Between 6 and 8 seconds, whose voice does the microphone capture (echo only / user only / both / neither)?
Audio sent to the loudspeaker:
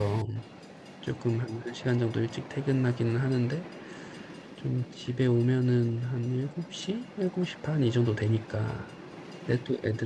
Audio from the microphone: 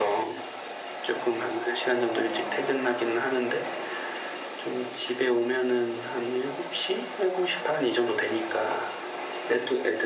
echo only